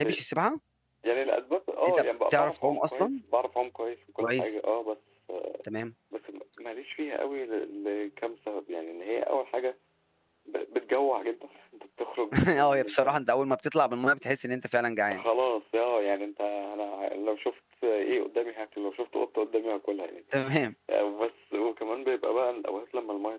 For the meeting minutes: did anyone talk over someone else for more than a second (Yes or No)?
Yes